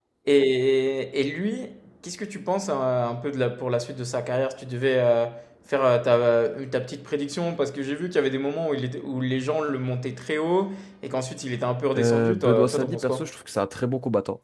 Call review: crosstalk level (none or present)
present